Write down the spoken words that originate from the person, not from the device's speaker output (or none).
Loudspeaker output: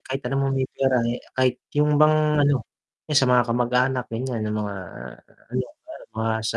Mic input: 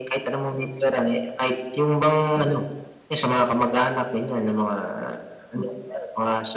none